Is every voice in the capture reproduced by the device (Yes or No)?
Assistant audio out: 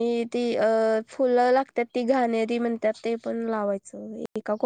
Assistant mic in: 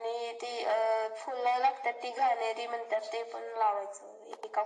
Yes